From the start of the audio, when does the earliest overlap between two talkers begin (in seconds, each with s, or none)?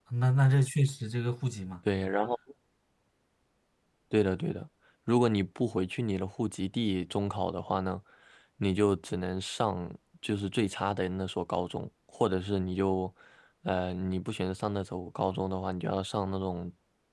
none